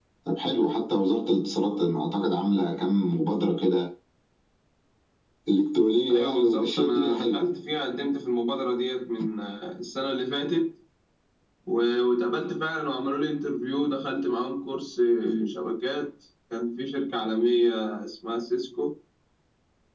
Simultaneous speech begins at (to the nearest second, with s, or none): 6 s